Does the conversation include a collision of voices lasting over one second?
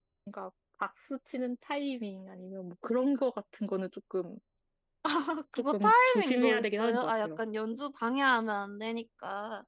Yes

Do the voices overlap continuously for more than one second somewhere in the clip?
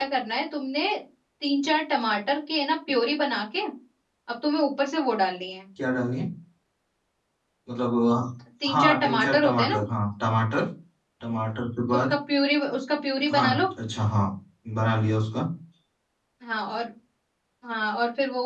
Yes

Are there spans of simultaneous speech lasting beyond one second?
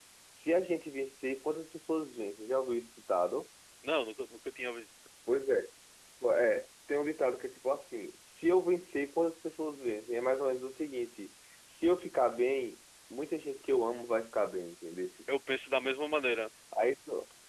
No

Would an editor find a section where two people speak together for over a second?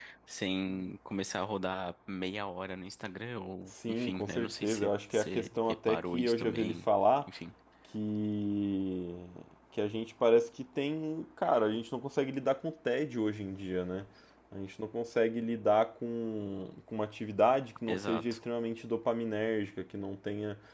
Yes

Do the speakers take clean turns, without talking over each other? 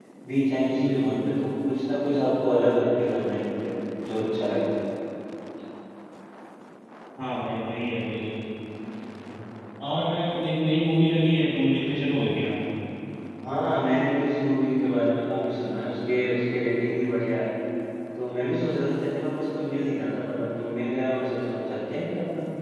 Yes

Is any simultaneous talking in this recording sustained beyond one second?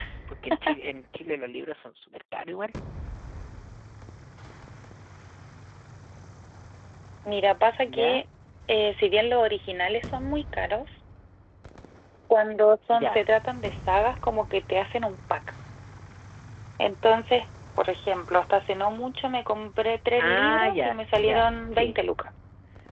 Yes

